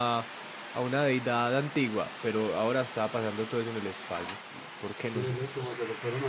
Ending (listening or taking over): taking over